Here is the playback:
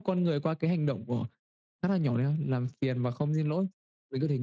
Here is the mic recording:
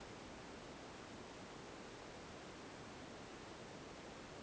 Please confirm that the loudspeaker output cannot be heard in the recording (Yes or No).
Yes